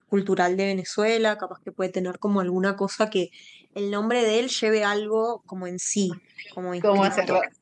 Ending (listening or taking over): taking over